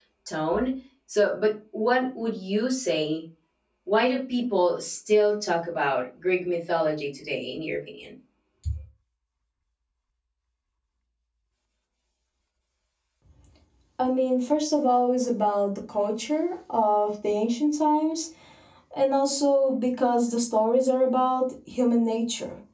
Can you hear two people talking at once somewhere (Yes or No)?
No